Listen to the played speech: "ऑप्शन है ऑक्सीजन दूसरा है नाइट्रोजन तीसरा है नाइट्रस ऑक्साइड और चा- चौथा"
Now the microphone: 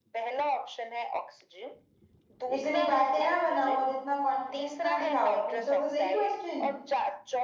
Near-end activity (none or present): present